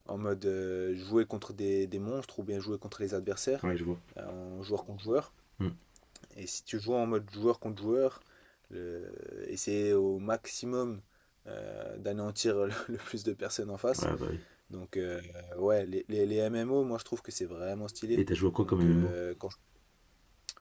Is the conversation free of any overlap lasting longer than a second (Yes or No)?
Yes